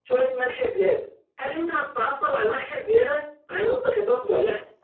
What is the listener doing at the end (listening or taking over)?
listening